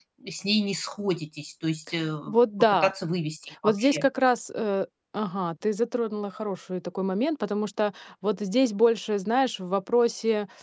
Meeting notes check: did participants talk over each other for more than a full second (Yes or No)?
No